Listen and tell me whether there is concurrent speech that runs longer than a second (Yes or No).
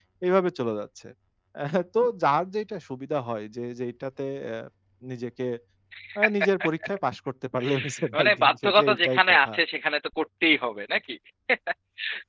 Yes